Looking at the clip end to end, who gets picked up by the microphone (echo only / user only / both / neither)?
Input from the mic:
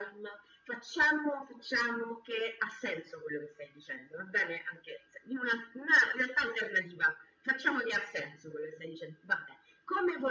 echo only